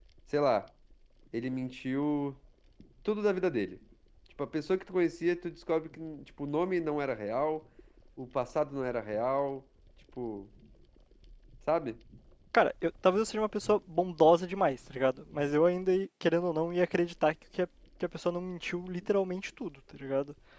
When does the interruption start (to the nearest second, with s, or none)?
none